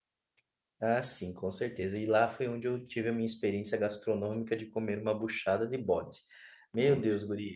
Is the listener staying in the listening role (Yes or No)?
Yes